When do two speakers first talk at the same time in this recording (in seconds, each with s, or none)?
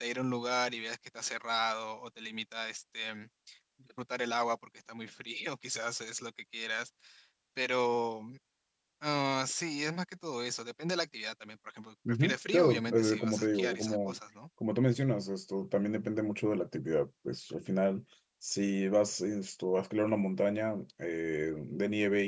12.1 s